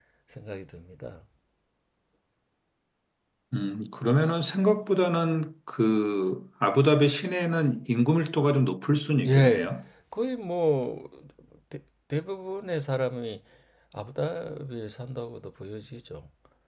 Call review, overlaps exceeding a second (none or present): none